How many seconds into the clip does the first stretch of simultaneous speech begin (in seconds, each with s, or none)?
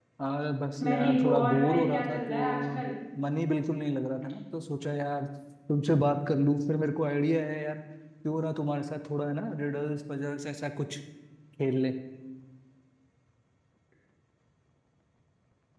0.8 s